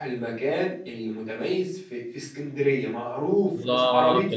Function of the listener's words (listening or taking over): taking over